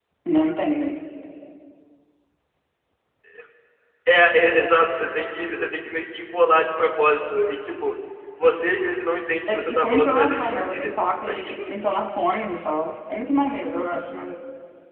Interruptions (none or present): present